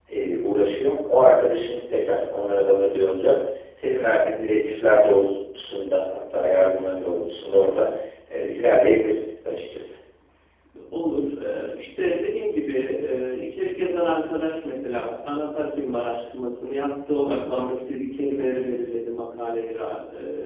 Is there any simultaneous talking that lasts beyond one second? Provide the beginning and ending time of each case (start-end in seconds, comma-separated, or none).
none